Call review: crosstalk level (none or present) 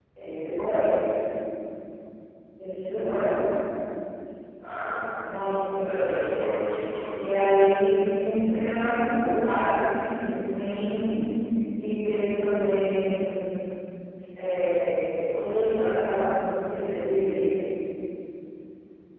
present